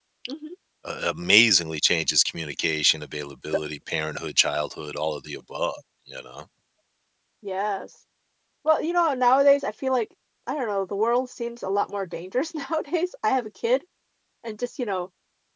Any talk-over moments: No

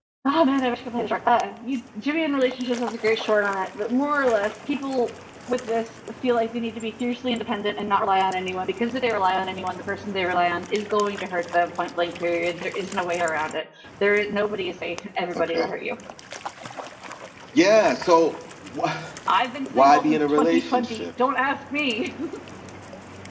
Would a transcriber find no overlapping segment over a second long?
No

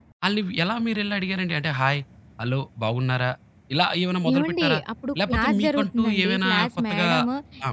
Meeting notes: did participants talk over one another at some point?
Yes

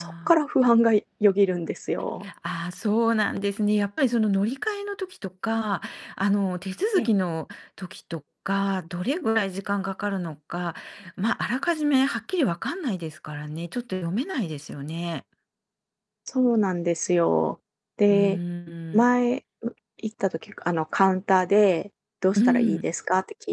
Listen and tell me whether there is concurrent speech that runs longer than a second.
No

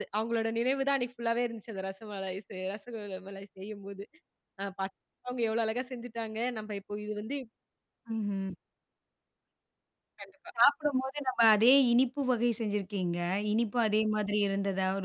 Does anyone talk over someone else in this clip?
No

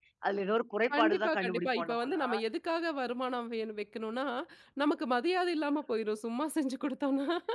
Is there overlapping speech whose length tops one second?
Yes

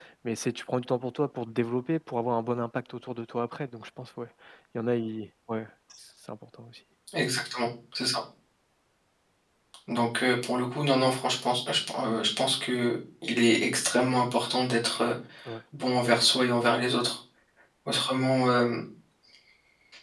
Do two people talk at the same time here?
No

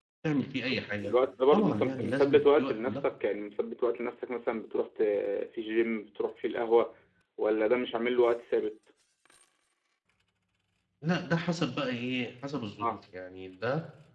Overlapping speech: Yes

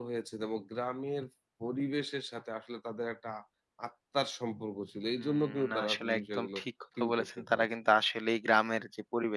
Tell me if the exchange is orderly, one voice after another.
No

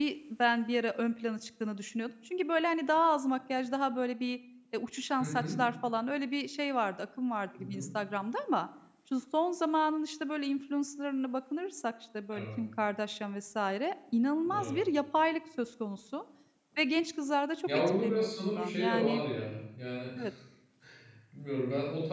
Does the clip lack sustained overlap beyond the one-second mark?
No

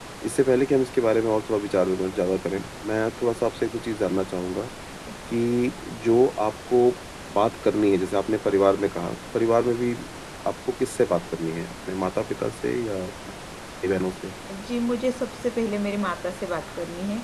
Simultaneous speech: No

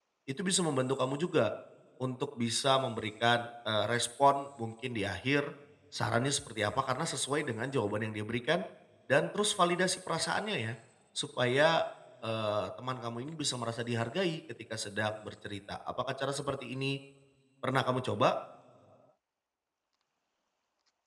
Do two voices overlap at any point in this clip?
No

